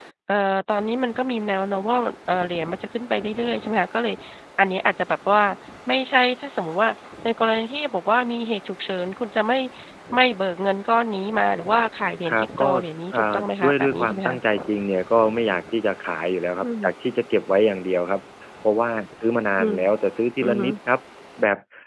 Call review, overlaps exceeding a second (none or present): present